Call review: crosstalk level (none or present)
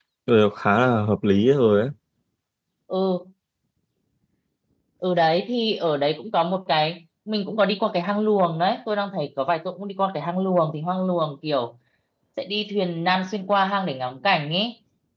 none